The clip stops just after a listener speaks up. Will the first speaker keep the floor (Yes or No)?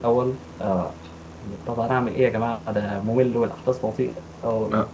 No